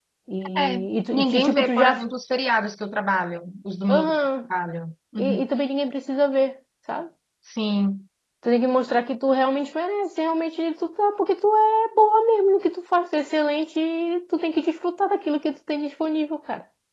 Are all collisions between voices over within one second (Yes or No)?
No